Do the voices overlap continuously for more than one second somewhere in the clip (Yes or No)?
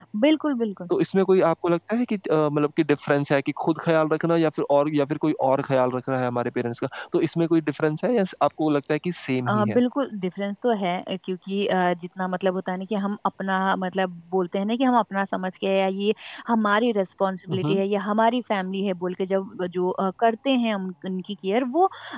No